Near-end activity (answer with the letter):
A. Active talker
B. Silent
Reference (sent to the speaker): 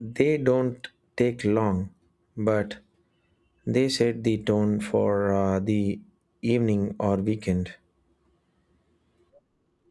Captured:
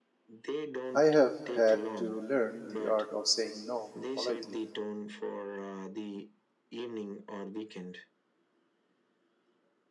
A